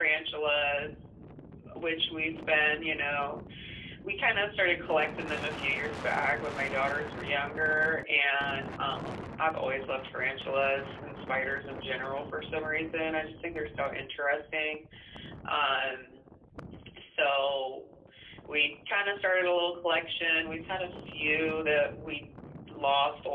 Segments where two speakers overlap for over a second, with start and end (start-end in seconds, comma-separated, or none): none